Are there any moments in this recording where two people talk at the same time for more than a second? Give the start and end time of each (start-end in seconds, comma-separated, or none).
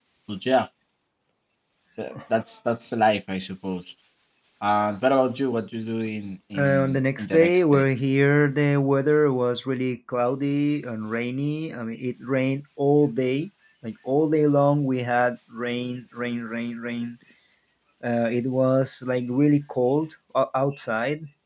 6.6-7.9